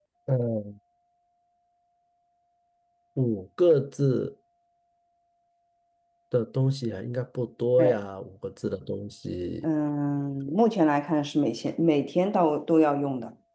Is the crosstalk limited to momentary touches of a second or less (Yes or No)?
Yes